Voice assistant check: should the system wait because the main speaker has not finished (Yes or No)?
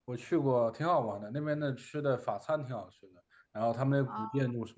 Yes